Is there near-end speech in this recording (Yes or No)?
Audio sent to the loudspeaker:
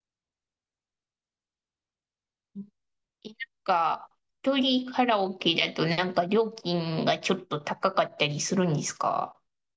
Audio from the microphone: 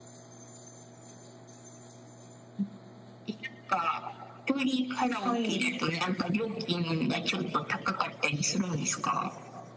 Yes